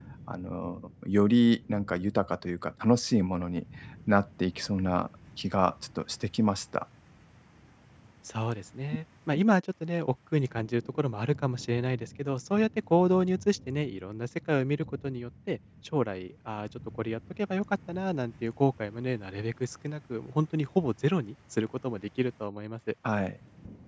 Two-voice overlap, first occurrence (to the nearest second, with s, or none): none